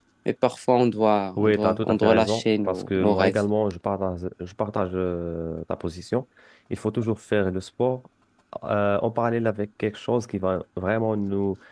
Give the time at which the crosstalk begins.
1.4 s

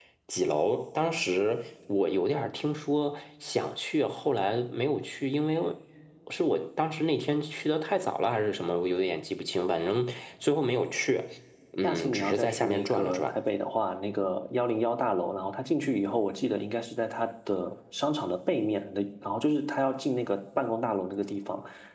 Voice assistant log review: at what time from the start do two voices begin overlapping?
11.8 s

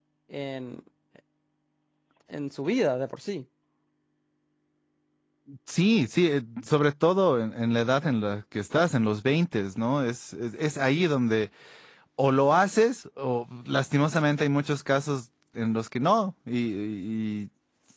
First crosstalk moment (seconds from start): none

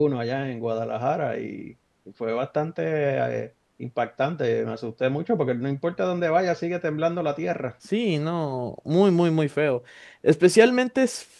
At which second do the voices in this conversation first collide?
none

